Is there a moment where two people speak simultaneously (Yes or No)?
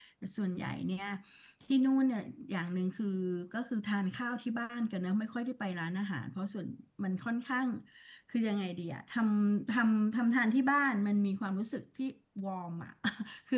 No